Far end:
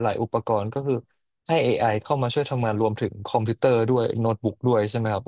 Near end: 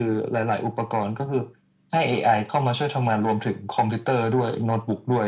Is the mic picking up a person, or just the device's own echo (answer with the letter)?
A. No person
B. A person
A